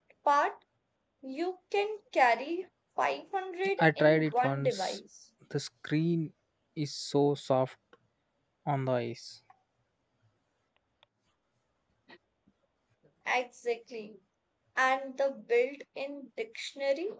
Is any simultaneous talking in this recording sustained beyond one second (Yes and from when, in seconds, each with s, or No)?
Yes, from 3.8 s